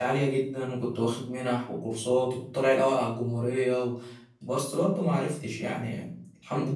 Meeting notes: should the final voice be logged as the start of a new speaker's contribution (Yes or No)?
Yes